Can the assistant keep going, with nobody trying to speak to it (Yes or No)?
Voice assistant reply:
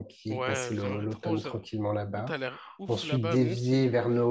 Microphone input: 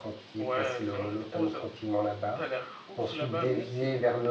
Yes